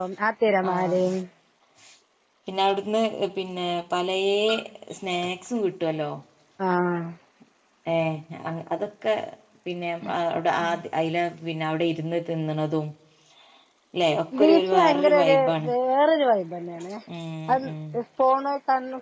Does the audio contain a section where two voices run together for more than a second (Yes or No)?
Yes